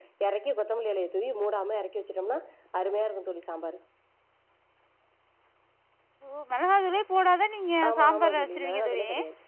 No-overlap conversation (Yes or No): No